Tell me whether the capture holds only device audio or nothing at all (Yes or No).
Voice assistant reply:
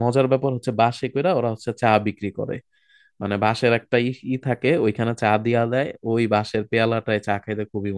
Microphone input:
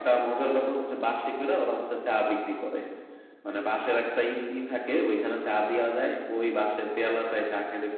Yes